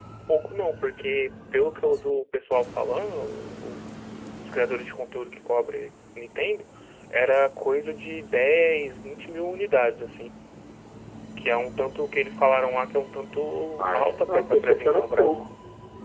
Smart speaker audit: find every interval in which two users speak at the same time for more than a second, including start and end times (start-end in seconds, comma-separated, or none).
13.8-15.4